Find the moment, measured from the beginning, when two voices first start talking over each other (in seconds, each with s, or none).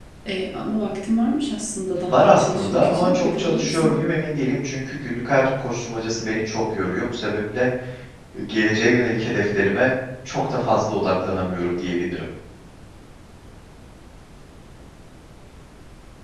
2.0 s